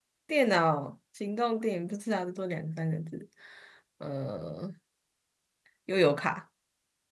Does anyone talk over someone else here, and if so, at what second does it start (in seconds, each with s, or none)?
none